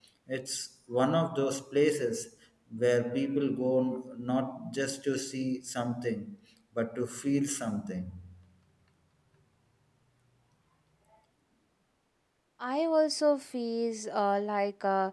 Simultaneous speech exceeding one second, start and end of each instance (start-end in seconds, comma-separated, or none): none